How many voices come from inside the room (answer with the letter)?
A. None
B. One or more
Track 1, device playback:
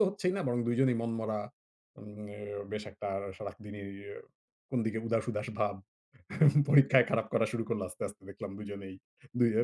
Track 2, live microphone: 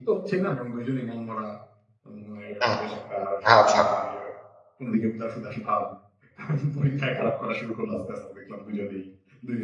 B